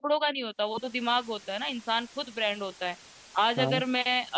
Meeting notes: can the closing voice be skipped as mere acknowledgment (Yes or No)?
Yes